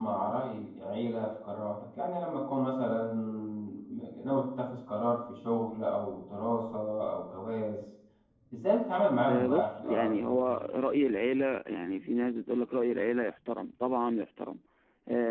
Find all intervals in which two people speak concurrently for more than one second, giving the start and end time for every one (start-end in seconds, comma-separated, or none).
9.3-10.6